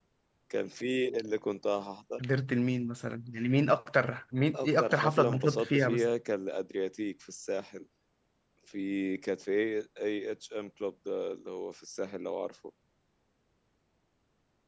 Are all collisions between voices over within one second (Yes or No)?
No